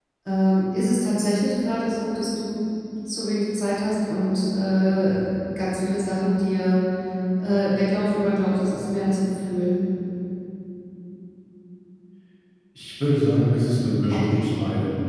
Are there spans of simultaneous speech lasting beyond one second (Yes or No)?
No